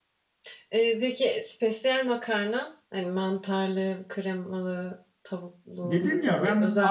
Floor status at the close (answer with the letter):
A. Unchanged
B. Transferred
B